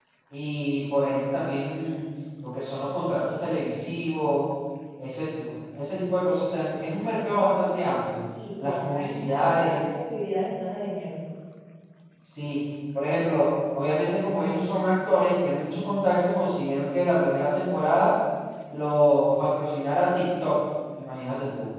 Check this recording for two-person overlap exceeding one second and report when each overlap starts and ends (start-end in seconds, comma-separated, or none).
8.6-9.8